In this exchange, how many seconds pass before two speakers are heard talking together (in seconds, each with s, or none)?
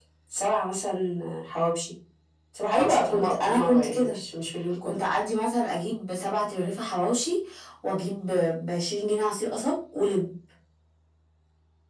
2.7 s